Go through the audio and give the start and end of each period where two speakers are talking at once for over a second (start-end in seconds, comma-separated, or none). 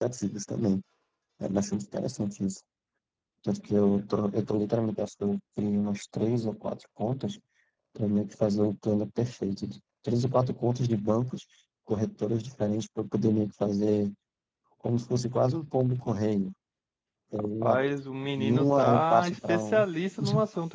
18.4-19.8